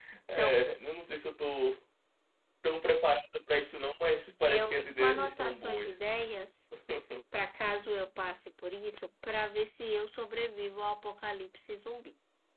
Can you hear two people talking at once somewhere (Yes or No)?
Yes